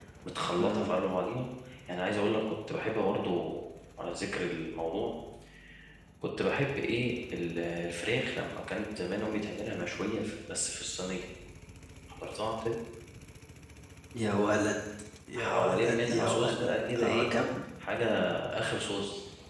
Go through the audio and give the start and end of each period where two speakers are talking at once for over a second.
15.3-17.3

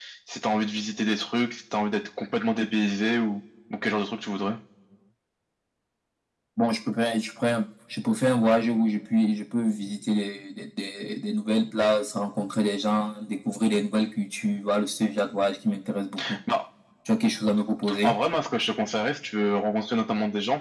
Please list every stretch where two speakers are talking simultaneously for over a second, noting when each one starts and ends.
none

